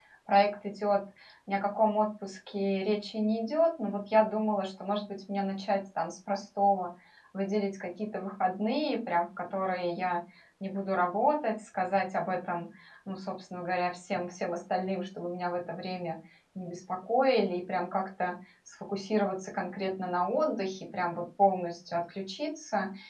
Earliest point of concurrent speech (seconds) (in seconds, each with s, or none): none